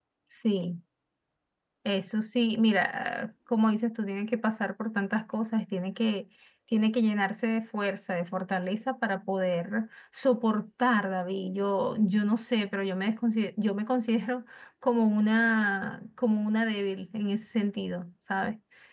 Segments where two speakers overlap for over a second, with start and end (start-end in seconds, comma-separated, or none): none